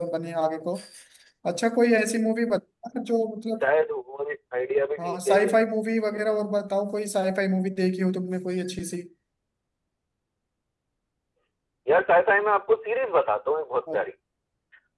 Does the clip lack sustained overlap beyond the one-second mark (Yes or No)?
Yes